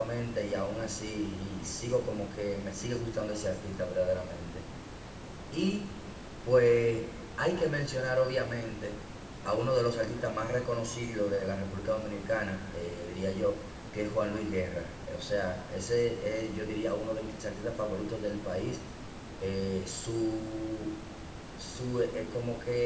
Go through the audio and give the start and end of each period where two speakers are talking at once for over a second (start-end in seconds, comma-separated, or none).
none